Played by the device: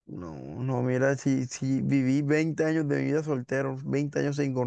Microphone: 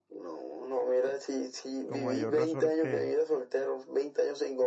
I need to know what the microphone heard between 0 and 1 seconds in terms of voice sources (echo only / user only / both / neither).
echo only